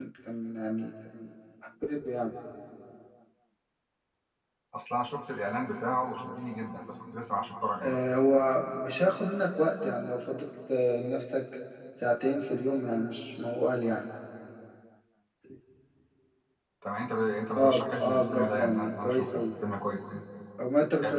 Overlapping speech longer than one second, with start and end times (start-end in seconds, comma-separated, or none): 17.6-19.4